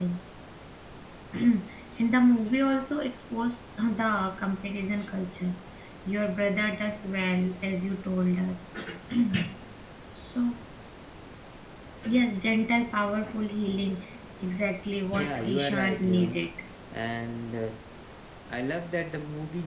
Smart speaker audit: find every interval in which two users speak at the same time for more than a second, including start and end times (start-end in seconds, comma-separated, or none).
15.1-16.4